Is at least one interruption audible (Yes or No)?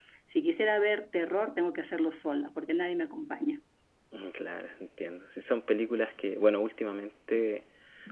No